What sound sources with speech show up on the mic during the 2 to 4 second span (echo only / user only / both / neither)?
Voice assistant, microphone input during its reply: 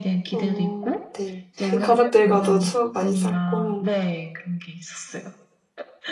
both